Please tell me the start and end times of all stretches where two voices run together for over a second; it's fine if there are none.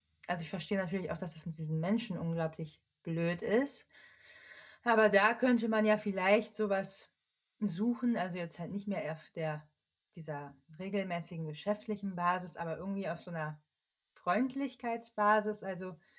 none

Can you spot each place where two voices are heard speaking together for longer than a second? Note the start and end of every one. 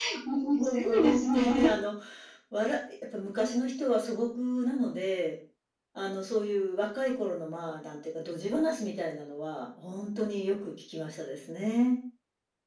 0.5-1.7

